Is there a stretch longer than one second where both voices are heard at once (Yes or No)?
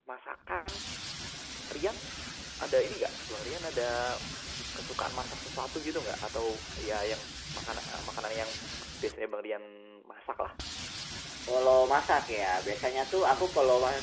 No